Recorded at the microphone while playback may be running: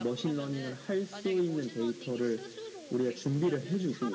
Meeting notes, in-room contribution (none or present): present